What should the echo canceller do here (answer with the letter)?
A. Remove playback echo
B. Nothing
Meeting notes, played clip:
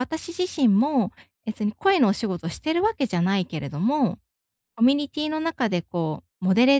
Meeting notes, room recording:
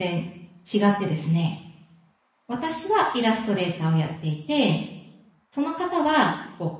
B